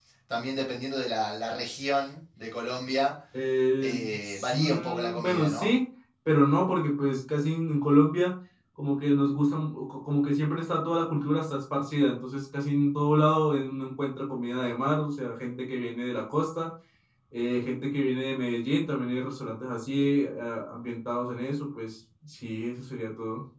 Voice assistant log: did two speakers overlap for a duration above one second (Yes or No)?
Yes